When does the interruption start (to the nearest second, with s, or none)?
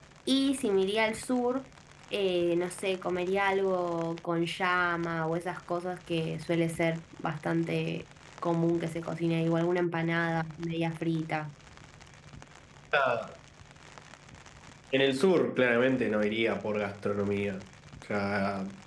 none